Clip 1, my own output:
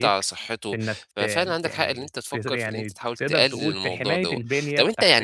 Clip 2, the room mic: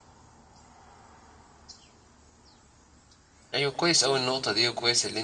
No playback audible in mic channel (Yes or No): Yes